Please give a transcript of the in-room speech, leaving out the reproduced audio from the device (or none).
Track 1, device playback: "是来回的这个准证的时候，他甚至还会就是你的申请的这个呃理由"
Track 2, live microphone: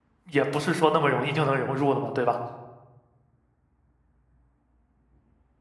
也不是说那么容易就能融入的嘛，对吧？